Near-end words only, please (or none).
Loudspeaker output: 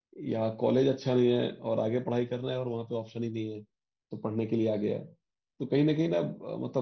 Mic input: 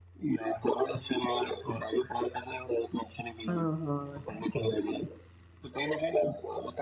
हाँ हाँ